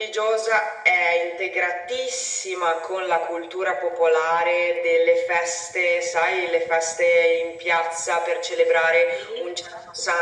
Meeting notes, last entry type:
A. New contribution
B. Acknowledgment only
B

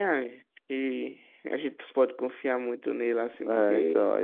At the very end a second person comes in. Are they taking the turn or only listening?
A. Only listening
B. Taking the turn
B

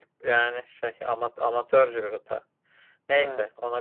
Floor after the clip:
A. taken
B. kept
B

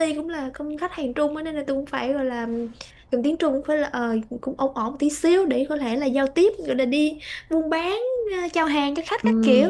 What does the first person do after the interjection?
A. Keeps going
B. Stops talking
B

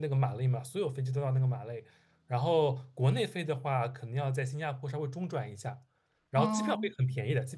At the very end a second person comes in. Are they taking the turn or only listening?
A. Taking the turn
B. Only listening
B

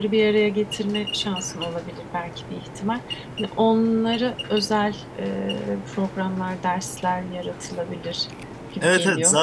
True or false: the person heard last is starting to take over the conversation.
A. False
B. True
B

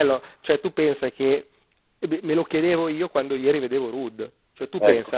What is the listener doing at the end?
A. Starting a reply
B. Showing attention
B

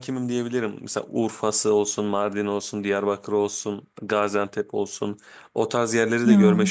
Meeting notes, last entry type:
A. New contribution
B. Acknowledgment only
B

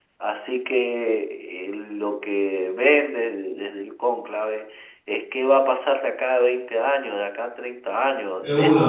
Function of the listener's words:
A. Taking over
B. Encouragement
A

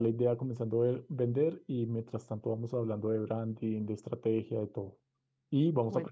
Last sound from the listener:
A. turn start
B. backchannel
B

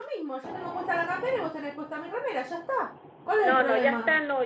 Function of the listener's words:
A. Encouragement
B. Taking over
B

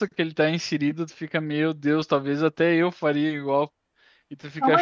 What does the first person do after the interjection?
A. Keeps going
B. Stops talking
B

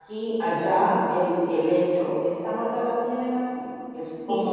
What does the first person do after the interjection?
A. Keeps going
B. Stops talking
A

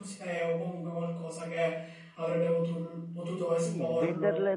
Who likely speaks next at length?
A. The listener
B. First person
A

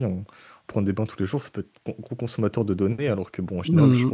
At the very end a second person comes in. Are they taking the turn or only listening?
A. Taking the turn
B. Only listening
A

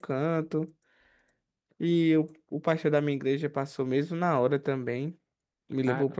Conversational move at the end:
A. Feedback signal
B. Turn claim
A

